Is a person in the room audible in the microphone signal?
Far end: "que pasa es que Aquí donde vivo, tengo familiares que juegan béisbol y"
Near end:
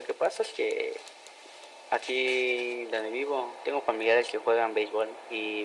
No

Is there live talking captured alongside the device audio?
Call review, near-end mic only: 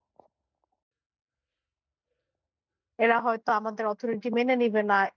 Yes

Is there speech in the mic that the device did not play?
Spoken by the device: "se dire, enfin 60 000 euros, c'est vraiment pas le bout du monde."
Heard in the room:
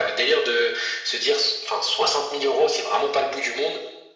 No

